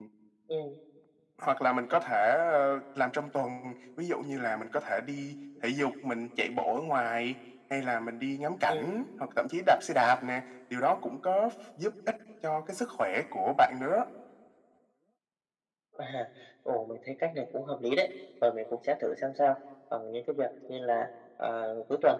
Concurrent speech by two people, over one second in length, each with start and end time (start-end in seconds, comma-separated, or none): none